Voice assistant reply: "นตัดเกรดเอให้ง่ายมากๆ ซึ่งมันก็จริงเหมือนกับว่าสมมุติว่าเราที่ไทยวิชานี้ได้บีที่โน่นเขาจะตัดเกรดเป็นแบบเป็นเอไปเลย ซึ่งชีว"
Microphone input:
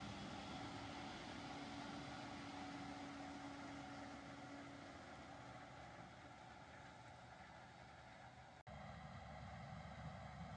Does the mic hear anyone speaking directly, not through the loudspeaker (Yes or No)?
No